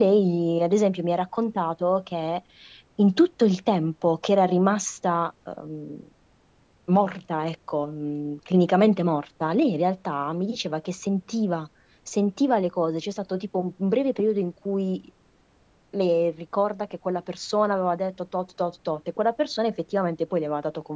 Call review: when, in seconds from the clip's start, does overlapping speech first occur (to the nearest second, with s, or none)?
none